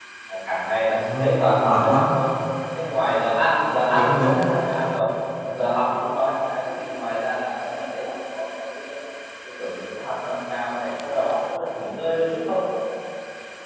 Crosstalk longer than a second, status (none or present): present